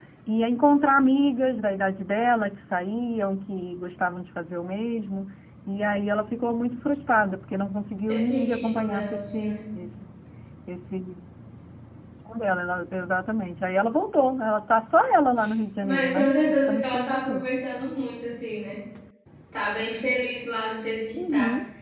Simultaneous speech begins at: 8.1 s

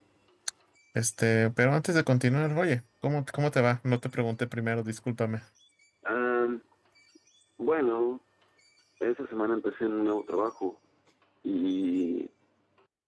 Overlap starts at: none

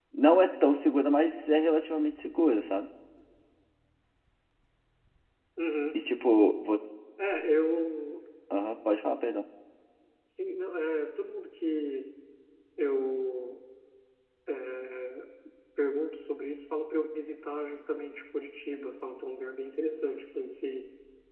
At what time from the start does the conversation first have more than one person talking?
none

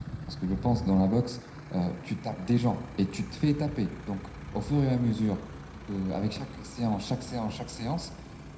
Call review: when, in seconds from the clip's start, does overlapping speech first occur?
none

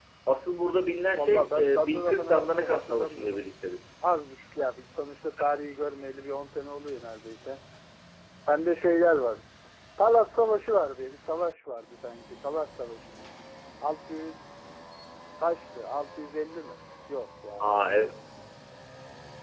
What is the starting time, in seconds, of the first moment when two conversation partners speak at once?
1.1 s

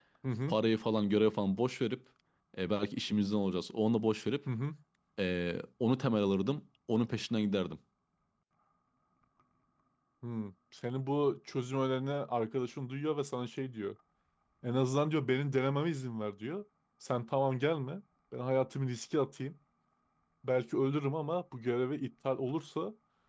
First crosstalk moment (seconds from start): none

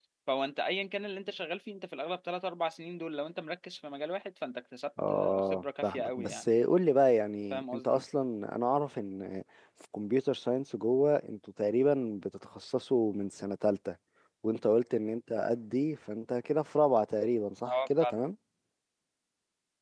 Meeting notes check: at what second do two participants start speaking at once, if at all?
5.1 s

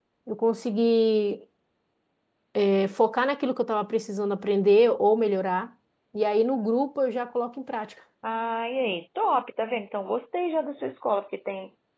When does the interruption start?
none

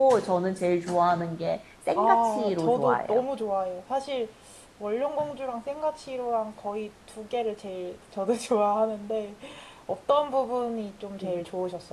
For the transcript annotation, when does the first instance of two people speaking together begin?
2.0 s

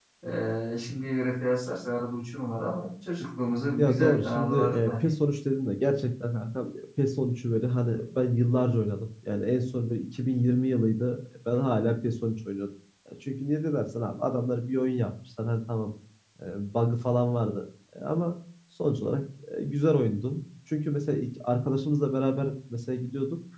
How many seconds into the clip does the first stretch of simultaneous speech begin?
3.8 s

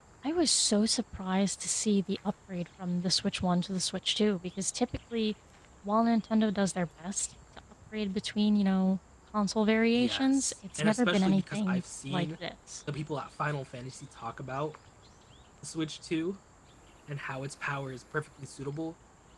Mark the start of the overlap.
9.9 s

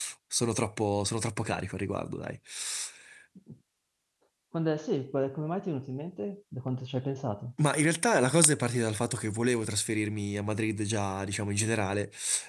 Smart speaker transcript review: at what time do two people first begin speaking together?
none

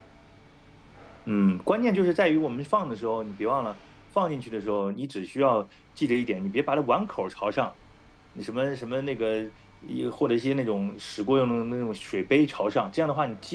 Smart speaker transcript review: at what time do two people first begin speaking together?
none

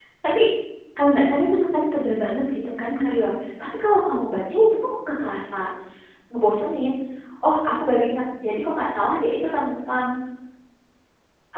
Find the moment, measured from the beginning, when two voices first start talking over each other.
none

